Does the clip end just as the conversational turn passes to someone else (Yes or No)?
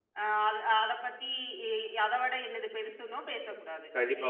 Yes